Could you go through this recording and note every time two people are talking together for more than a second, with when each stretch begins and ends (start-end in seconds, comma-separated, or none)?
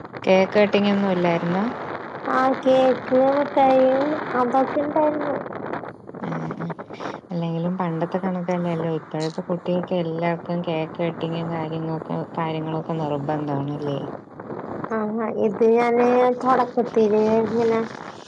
none